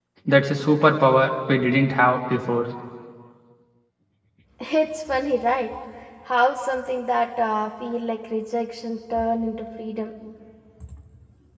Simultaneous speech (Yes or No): No